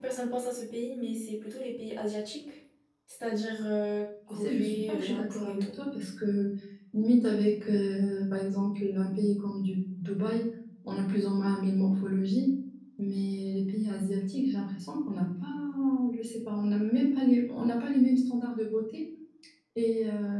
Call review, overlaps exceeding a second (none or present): present